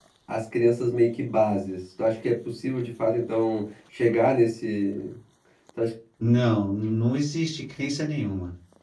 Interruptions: none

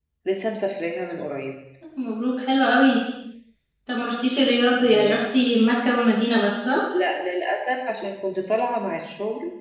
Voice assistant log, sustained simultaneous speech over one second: none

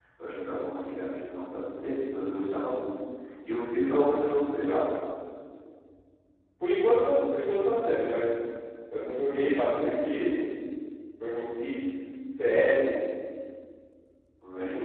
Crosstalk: none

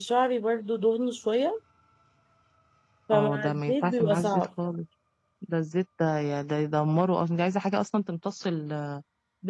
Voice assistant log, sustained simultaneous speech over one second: present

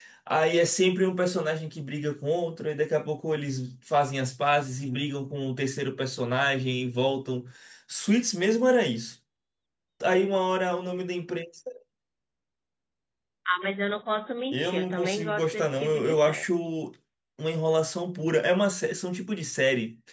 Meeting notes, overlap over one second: present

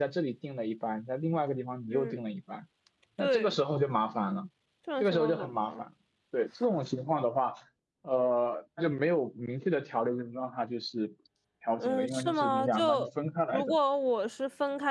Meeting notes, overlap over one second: present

